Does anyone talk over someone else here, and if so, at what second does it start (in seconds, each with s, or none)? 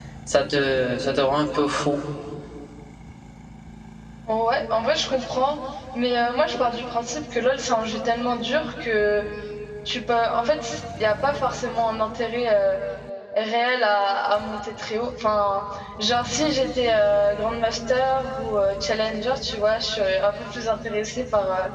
none